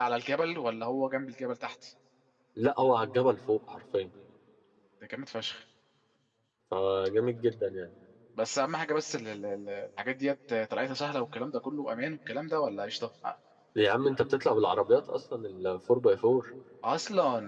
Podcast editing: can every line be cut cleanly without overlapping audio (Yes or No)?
Yes